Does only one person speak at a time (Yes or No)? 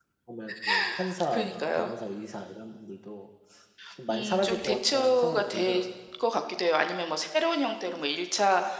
No